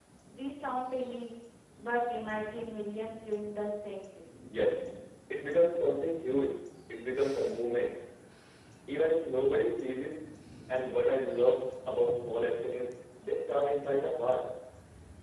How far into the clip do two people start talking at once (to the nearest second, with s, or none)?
none